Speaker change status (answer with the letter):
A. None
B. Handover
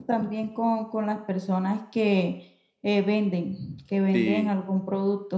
A